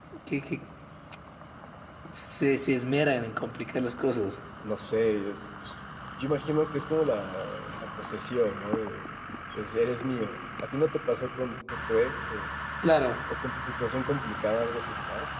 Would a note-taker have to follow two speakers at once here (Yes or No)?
No